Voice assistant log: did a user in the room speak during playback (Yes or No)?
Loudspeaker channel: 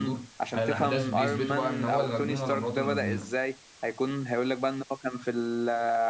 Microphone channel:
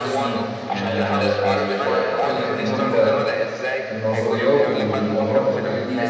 Yes